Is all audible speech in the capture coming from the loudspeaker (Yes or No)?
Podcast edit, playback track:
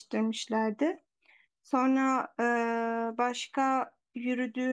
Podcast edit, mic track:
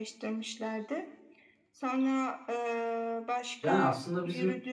No